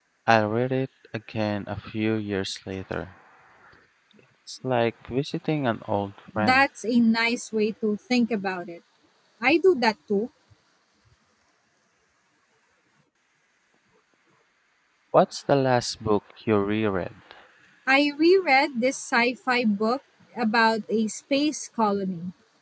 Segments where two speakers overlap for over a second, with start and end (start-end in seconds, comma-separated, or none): none